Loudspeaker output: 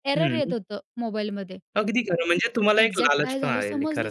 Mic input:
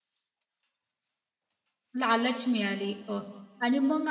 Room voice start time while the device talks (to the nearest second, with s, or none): 2 s